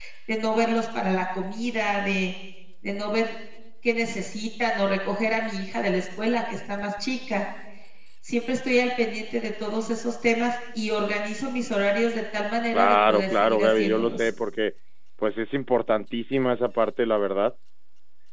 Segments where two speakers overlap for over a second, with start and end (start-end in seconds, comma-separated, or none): 12.7-14.3